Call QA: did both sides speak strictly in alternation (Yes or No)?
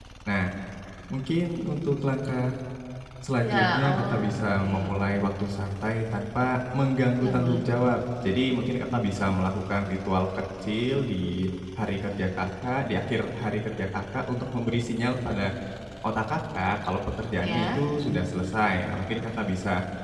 No